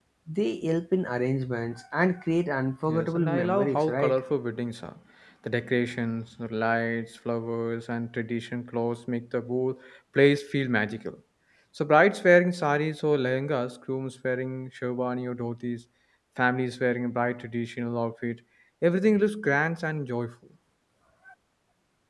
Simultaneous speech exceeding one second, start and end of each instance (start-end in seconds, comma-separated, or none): 2.9-4.2